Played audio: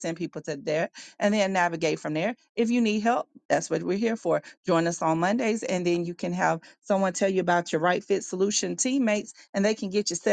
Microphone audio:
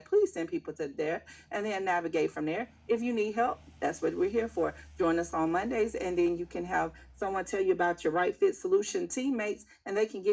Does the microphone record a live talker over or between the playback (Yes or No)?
No